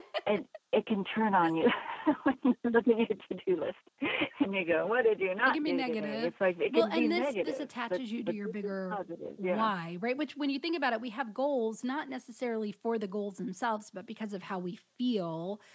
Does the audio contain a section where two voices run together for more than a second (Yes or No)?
Yes